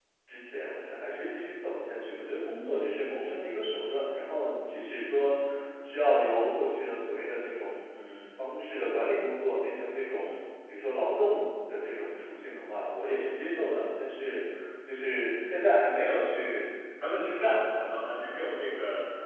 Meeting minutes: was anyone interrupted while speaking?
No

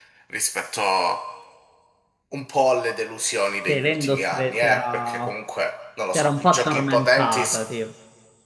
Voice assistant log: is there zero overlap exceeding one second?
No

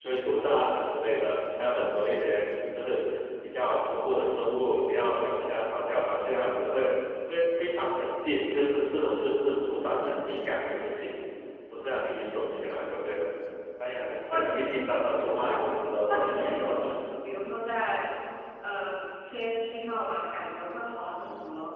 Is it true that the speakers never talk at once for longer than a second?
No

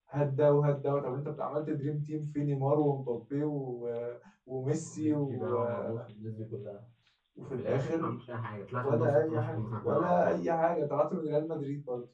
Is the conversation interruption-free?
No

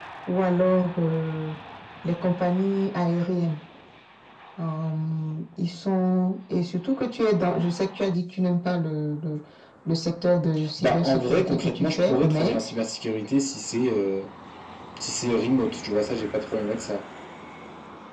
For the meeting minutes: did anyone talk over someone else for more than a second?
Yes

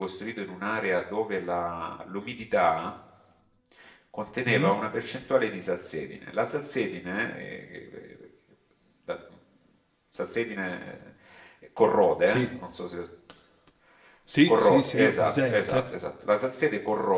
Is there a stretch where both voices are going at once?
Yes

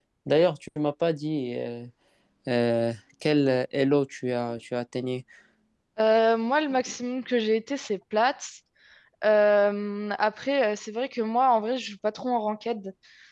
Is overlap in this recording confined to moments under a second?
Yes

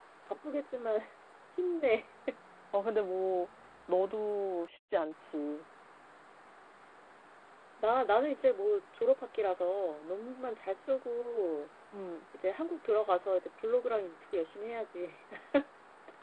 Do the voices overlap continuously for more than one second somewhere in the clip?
No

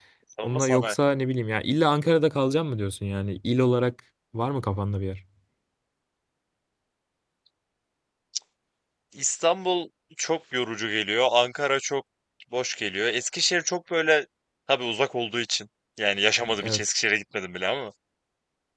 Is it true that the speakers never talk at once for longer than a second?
Yes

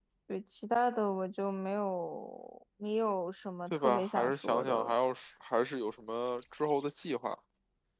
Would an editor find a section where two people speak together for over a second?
Yes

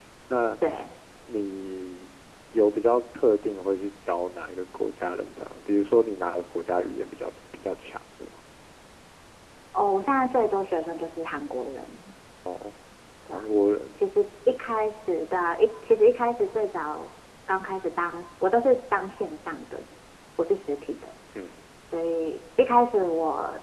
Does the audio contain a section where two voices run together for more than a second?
No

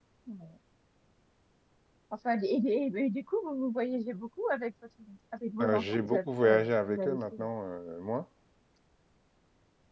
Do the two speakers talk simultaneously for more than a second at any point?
Yes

